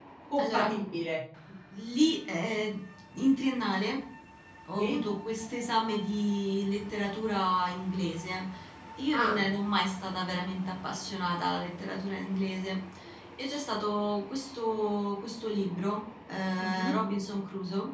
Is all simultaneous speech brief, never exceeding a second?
Yes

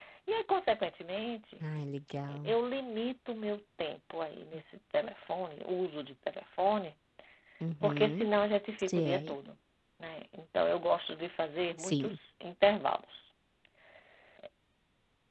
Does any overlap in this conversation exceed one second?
No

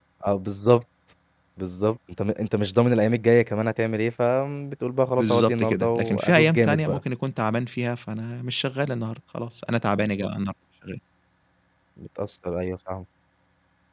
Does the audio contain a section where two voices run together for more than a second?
Yes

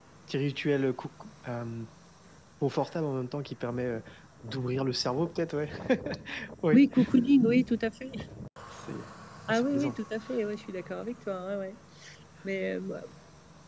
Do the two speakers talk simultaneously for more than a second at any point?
No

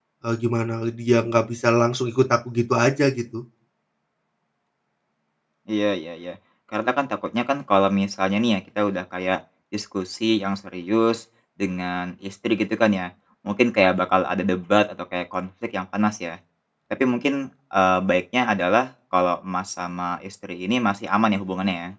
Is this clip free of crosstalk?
Yes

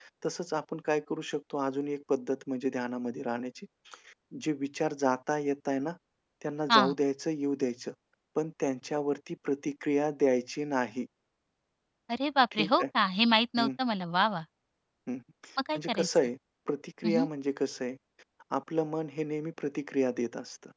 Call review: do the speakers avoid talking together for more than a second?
Yes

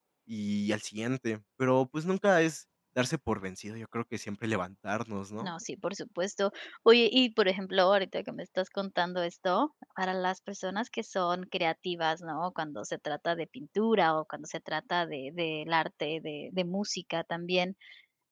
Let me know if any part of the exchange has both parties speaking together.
No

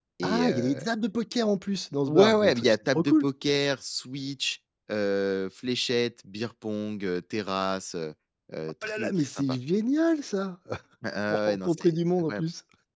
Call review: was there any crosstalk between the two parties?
Yes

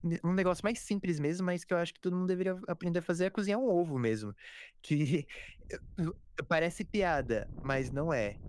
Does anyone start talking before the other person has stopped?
No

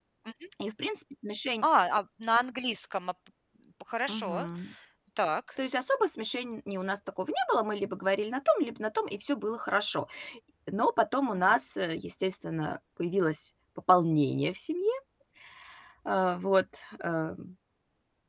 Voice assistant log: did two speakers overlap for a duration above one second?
No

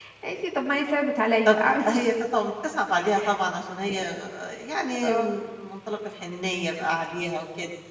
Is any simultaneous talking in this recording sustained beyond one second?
No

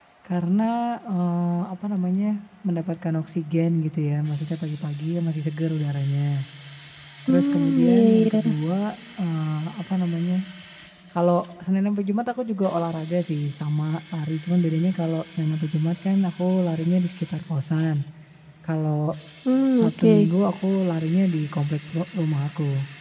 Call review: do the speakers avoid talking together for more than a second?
No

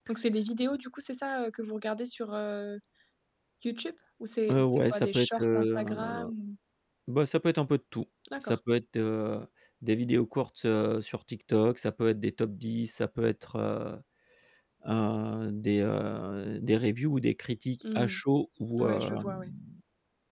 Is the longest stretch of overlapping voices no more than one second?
No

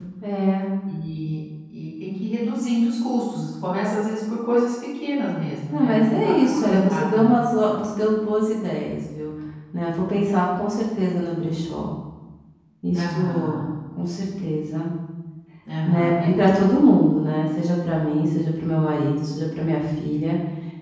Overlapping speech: Yes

